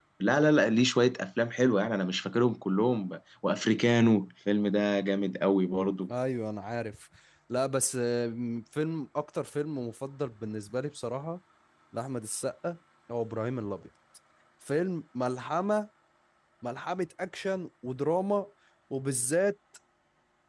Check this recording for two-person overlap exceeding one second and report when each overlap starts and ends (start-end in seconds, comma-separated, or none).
none